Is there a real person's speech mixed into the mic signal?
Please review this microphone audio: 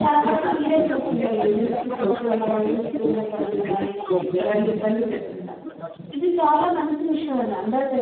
Yes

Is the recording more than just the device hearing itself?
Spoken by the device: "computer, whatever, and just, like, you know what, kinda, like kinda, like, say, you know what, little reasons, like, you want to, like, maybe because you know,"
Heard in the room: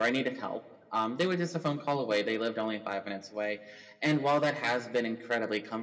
Yes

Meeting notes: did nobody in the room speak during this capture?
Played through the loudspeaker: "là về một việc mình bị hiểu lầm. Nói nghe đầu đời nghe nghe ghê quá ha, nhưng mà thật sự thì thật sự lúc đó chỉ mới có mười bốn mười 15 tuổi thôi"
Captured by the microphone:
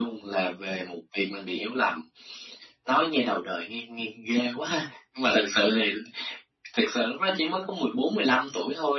Yes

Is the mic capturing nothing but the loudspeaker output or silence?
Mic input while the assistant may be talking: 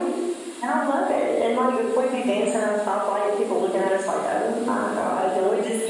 Yes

